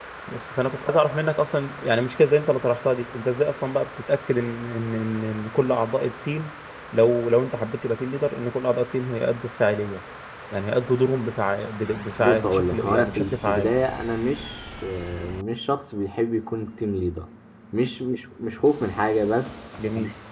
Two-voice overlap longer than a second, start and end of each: 12.2-13.7

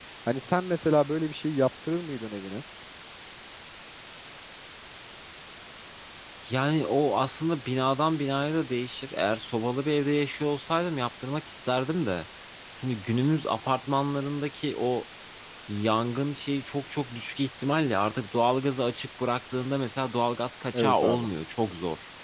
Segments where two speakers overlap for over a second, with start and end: none

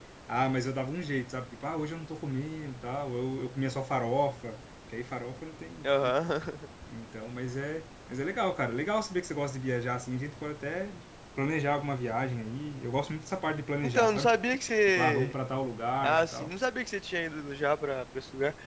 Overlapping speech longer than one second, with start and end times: none

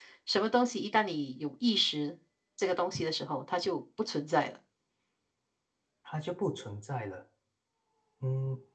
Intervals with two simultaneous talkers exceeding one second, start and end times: none

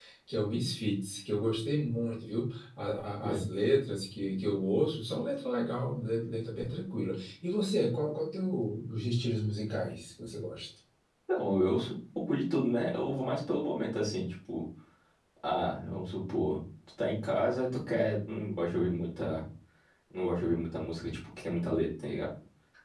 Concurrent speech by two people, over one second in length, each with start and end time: none

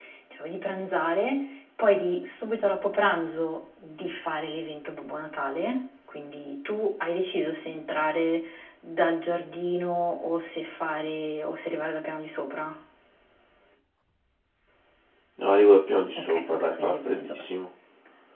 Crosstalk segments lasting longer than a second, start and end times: 16.1-17.4

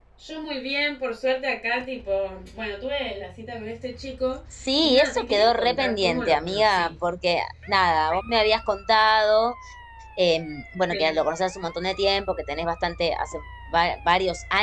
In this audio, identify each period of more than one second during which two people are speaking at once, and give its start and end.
4.8-6.9

